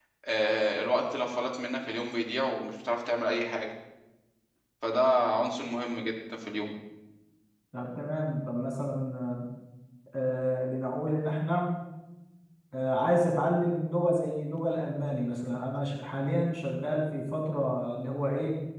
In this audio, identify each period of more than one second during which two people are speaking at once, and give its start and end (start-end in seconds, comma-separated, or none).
none